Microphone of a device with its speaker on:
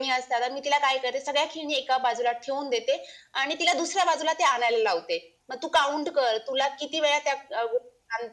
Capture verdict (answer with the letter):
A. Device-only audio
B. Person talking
A